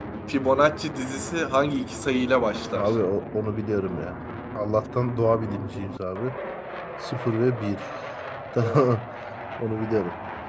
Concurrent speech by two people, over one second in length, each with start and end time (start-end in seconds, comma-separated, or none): none